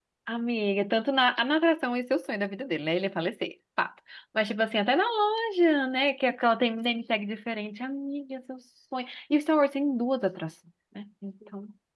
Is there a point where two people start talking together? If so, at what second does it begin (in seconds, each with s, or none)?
none